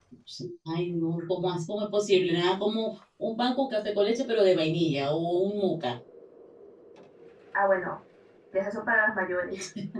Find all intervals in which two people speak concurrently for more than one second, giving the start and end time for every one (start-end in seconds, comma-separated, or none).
none